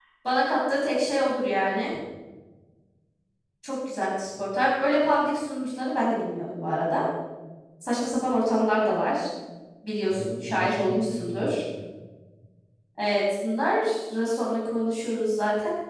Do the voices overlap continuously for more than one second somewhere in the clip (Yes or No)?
Yes